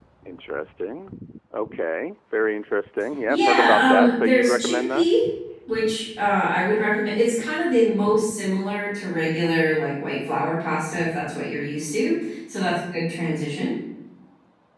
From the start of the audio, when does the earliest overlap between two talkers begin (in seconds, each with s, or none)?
3.3 s